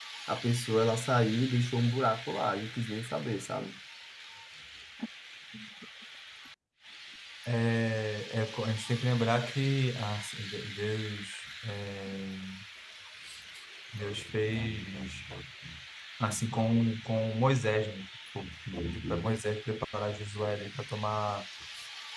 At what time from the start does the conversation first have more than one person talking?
none

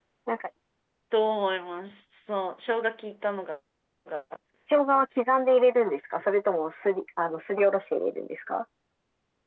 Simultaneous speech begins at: none

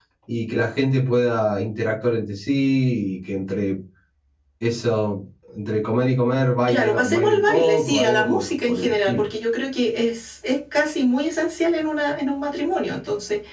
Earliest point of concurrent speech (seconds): 6.6 s

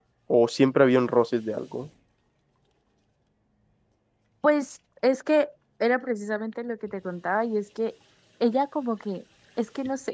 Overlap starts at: none

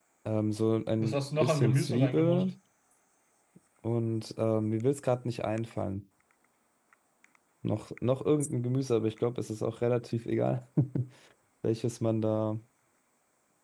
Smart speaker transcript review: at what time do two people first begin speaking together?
1.0 s

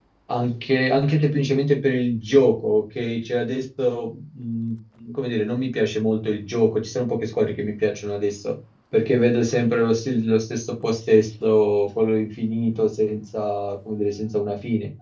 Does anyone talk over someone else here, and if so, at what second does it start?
none

